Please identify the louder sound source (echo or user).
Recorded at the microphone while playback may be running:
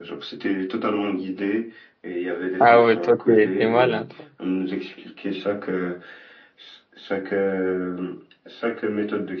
user